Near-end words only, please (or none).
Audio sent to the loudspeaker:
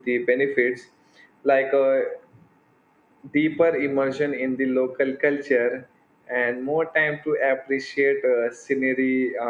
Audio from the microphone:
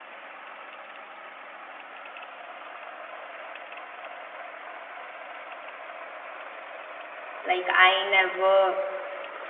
like I never